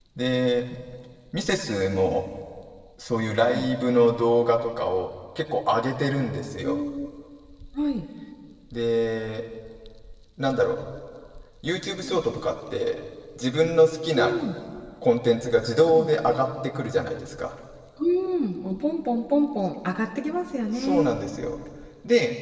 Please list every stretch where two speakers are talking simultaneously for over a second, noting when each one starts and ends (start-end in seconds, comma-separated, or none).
none